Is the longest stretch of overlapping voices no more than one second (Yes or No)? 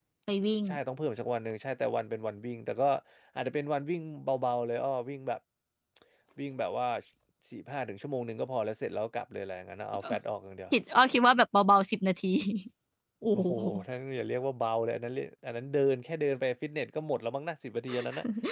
Yes